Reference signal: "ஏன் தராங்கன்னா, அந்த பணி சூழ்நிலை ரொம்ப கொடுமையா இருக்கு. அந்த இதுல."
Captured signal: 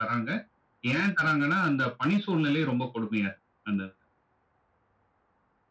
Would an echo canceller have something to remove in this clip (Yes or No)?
Yes